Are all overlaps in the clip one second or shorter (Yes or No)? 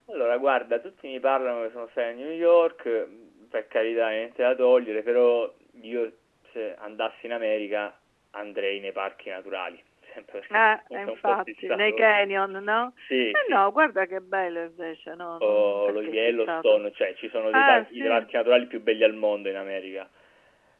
No